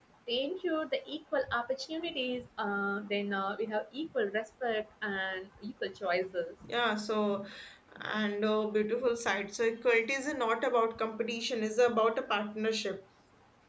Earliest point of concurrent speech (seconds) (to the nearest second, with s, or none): none